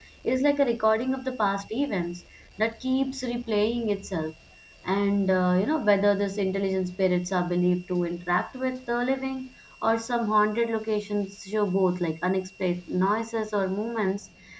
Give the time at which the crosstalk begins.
none

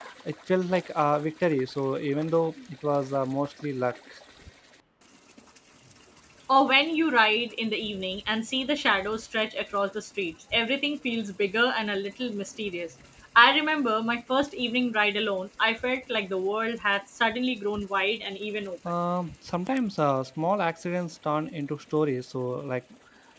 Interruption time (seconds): none

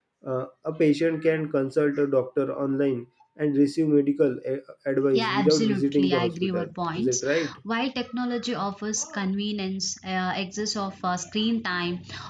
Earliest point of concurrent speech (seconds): 5 s

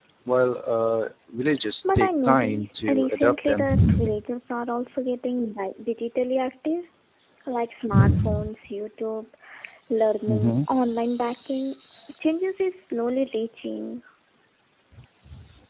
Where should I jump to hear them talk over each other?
2 s

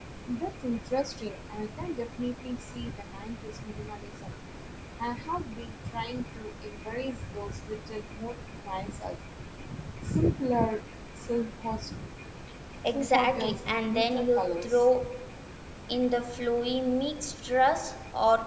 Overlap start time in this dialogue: 13 s

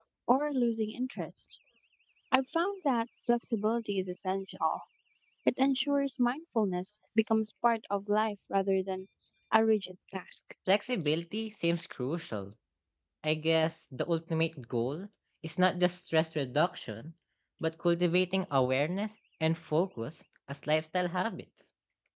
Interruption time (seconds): none

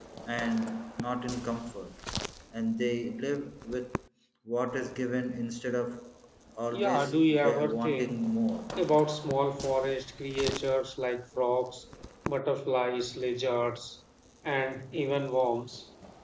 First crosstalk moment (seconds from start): 7 s

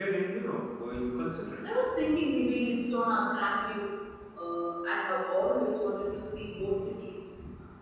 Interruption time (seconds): none

